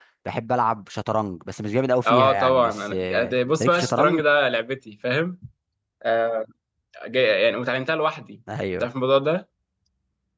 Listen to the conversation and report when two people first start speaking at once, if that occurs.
2.0 s

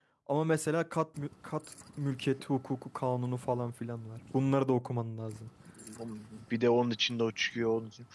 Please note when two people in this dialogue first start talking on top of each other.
none

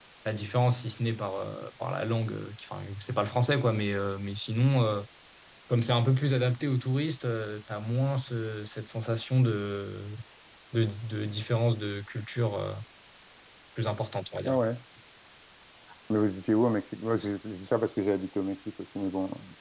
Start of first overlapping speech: none

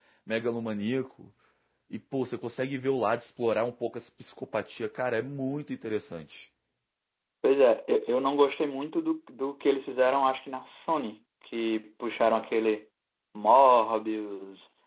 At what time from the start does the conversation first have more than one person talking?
none

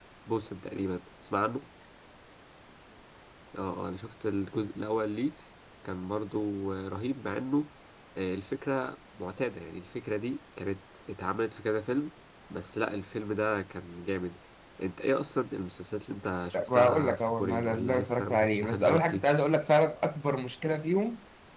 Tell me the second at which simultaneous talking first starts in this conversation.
16.5 s

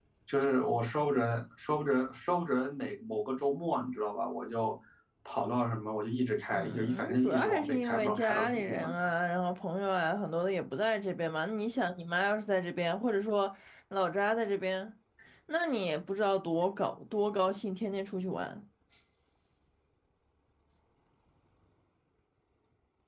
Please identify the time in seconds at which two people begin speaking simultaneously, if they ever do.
6.5 s

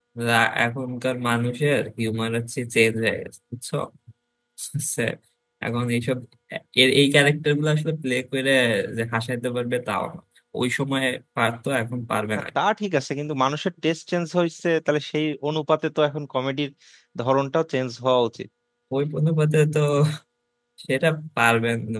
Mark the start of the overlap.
none

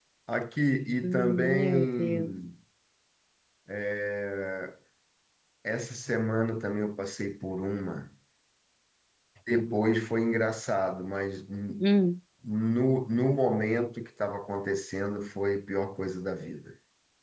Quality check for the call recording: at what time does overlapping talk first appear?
1.0 s

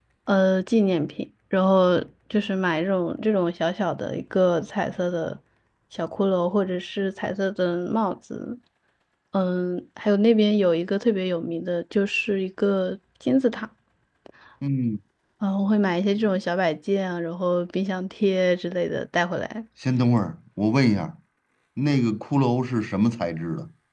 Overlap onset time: none

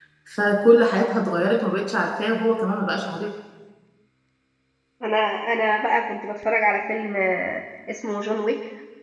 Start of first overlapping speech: none

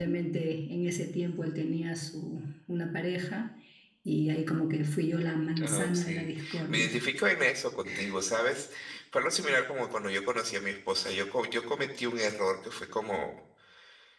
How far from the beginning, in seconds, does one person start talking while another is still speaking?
5.6 s

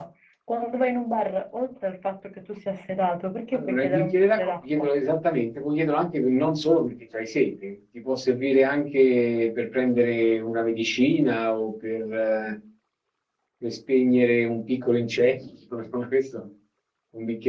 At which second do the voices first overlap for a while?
3.5 s

